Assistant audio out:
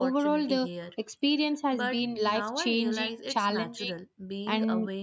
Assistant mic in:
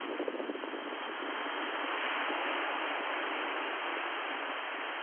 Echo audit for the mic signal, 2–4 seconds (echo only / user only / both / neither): neither